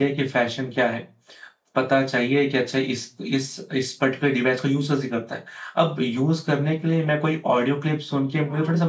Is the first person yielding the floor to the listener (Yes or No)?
No